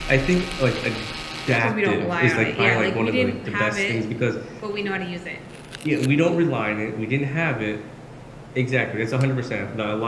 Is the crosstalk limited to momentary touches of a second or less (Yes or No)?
No